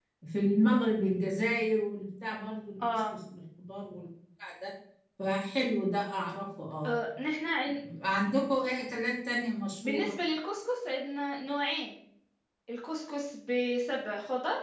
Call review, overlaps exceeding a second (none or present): none